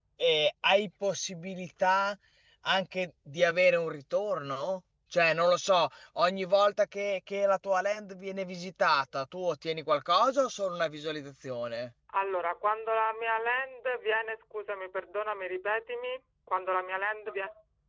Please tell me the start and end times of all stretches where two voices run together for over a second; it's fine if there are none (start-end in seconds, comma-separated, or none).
none